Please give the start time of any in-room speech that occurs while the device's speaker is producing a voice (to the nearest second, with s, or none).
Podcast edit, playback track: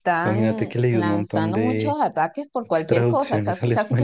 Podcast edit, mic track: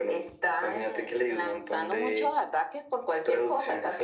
none